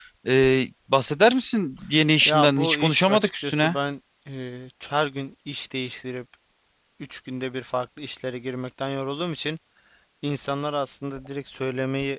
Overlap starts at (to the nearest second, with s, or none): 2 s